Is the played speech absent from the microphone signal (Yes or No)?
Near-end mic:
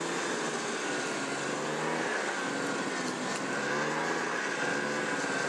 Yes